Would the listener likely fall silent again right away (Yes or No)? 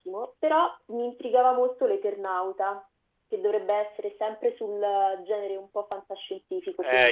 No